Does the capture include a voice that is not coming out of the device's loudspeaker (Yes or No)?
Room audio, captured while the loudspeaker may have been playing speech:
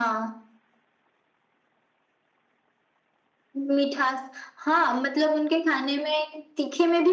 No